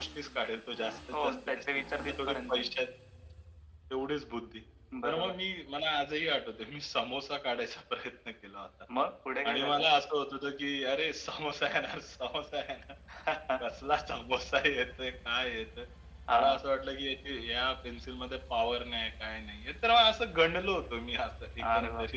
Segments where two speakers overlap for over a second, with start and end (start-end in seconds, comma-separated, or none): 1.1-2.6